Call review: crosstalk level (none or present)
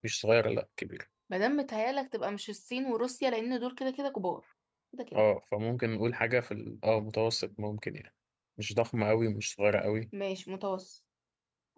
none